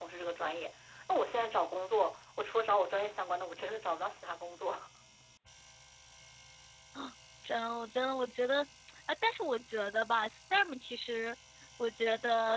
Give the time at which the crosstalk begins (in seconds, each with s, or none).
none